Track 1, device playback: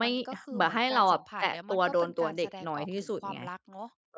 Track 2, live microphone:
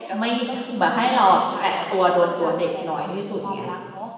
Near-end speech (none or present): none